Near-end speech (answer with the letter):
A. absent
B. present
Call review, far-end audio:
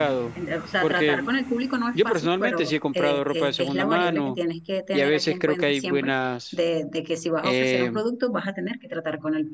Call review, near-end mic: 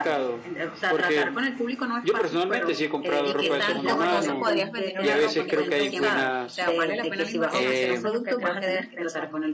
B